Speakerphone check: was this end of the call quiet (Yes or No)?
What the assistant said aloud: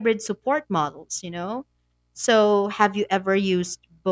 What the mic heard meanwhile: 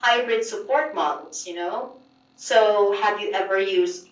Yes